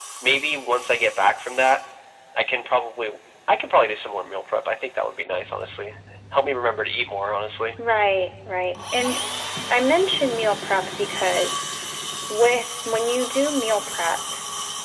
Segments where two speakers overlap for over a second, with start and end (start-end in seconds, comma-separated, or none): none